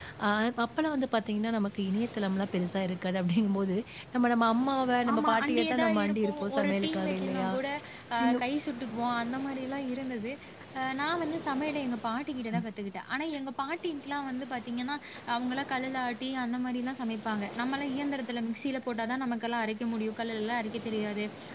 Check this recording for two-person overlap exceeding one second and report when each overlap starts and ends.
5.1-7.5

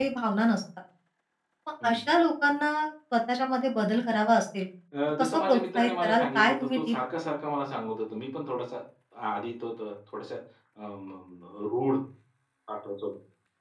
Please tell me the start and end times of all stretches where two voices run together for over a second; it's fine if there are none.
5.2-7.0

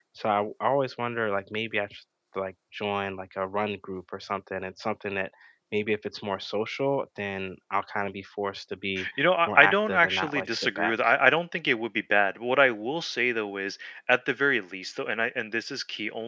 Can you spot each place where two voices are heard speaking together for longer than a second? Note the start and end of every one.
9.5-10.9

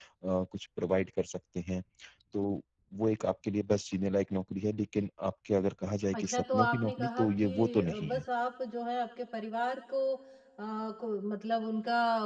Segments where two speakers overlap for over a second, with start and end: 6.2-8.2

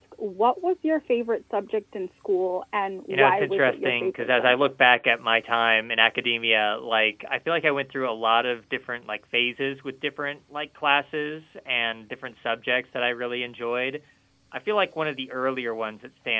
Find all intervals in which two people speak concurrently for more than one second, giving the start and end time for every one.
3.1-4.7

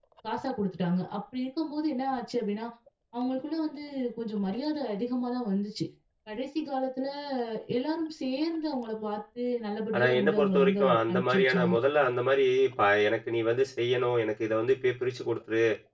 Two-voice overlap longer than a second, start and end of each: 9.9-11.7

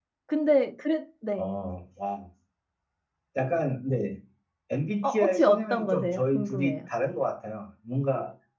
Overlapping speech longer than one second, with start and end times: 5.0-6.7

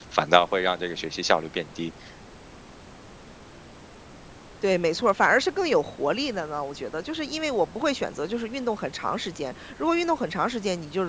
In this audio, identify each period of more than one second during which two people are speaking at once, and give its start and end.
none

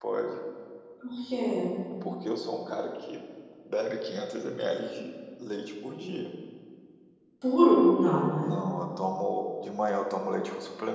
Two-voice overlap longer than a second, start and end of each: none

